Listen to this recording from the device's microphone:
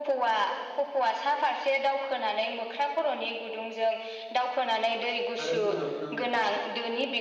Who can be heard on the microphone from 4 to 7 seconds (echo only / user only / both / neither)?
both